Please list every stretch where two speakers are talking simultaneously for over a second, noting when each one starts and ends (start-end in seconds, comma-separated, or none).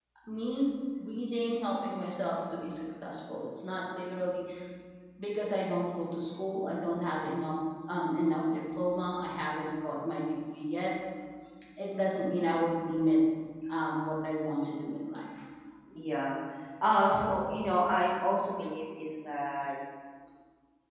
none